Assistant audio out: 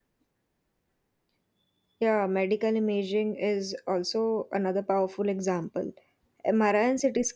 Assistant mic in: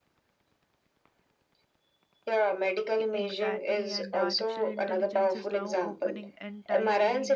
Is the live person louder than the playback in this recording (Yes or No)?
No